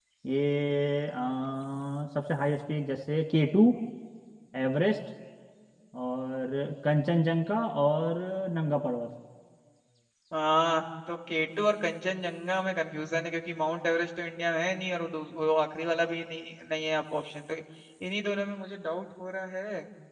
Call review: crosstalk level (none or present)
none